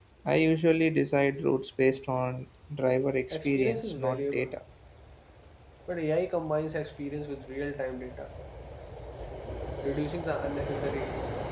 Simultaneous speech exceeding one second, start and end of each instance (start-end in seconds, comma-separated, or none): 3.3-4.5